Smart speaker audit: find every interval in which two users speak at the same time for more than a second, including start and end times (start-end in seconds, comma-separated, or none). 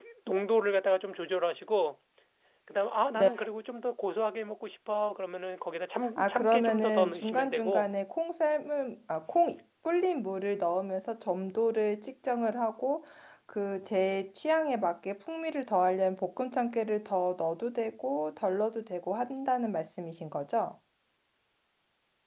6.2-7.9